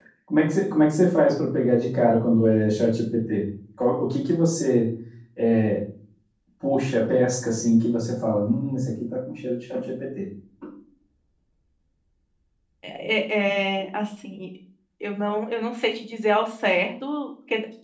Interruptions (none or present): none